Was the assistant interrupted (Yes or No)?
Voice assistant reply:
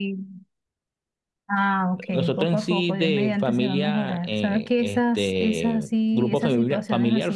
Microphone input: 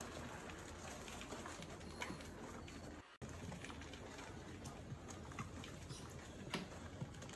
No